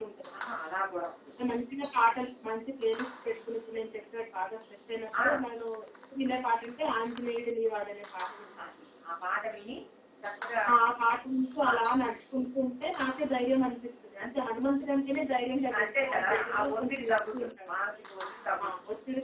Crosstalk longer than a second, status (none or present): present